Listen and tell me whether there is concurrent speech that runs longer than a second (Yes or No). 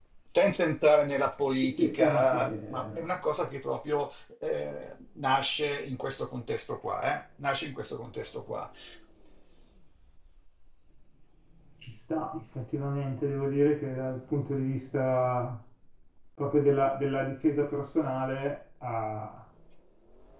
Yes